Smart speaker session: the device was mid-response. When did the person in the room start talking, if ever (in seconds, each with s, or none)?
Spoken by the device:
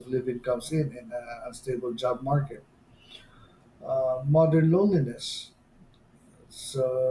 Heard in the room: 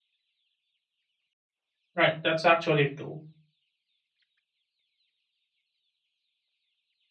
1.9 s